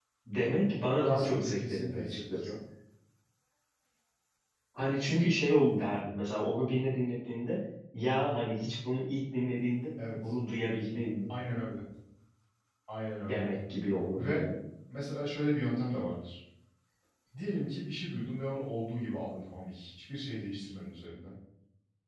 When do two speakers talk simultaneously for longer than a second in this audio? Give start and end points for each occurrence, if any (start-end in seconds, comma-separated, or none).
1.0-2.6